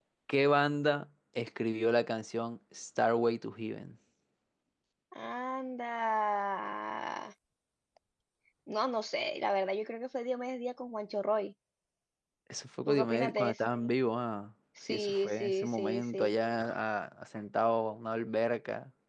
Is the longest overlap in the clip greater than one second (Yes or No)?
Yes